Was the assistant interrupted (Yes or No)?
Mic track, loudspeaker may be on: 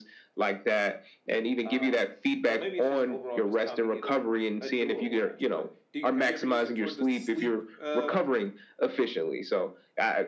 Yes